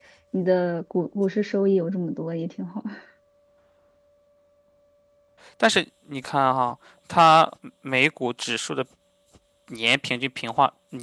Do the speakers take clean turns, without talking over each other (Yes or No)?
Yes